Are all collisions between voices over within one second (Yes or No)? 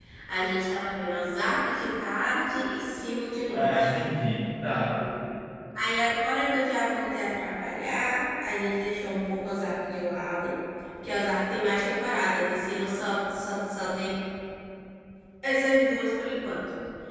Yes